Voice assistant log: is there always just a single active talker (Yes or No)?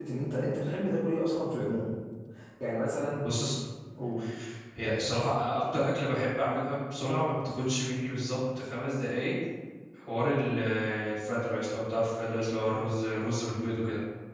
Yes